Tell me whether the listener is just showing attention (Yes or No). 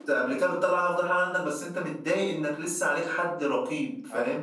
No